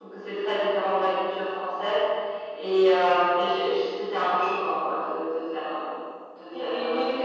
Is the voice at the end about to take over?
Yes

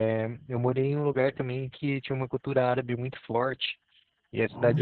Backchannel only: Yes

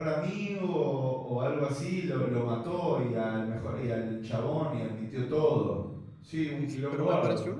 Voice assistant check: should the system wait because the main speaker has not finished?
No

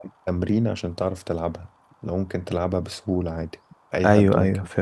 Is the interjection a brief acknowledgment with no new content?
No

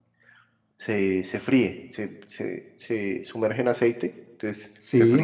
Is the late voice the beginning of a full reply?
No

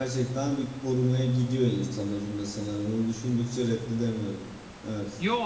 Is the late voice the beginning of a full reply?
Yes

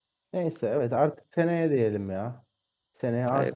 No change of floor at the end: Yes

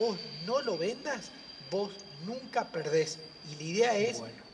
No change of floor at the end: Yes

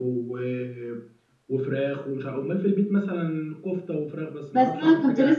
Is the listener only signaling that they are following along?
No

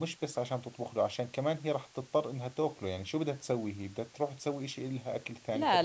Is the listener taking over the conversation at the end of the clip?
Yes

